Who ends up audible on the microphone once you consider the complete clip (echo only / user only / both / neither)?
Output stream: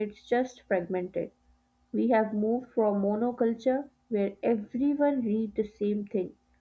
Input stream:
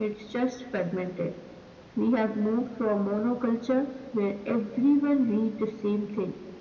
echo only